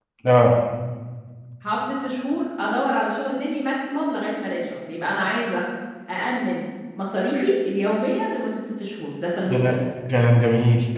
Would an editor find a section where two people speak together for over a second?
No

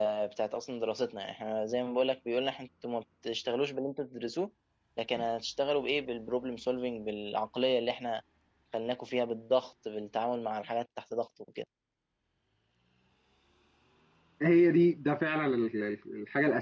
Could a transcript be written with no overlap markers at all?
Yes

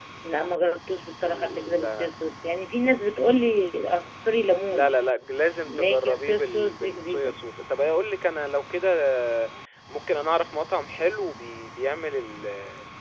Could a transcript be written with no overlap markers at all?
No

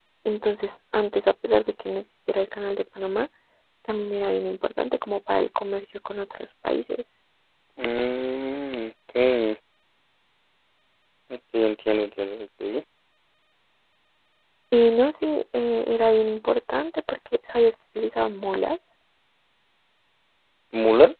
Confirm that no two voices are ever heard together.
Yes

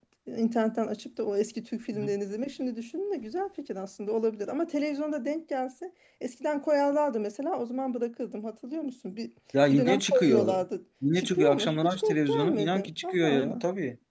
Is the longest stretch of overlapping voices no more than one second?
No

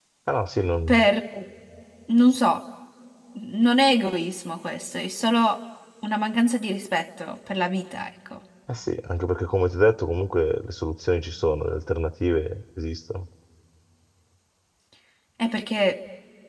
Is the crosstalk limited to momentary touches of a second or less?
Yes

